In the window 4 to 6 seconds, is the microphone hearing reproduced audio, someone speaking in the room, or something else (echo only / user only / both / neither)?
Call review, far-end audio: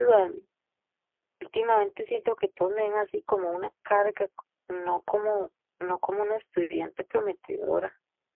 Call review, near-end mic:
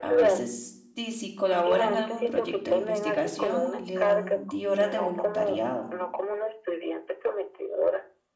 both